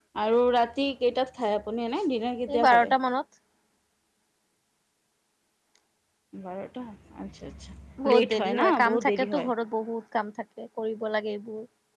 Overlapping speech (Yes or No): Yes